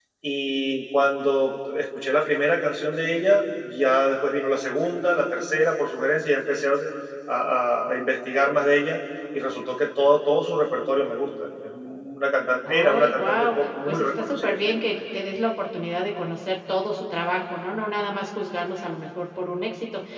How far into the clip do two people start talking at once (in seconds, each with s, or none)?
12.6 s